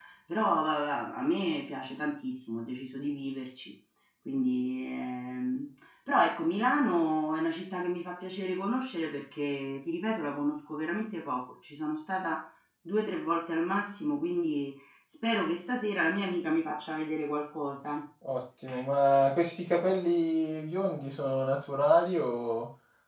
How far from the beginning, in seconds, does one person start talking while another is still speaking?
none

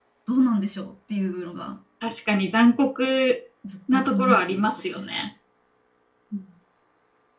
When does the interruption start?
3.9 s

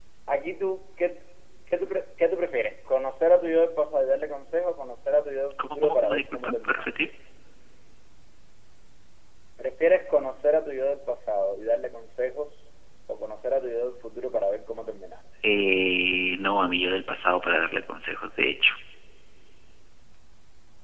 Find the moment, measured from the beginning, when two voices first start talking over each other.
5.6 s

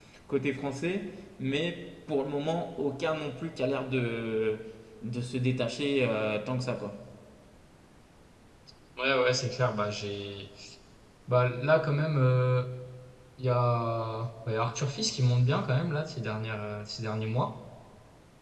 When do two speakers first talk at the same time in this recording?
none

